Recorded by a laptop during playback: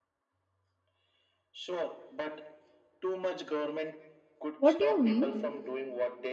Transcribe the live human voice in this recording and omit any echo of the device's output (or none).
What do you mean?